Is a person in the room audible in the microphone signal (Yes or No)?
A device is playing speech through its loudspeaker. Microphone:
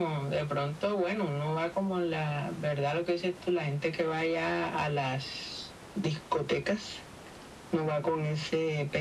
No